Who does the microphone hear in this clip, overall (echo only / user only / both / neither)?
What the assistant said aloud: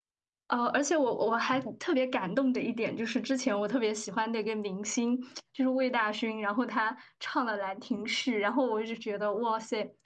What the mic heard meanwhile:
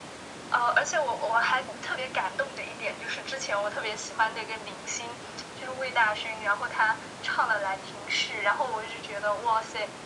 echo only